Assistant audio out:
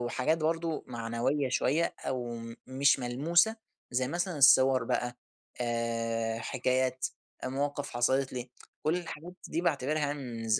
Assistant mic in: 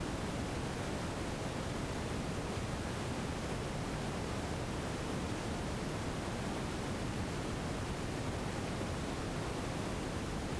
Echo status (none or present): none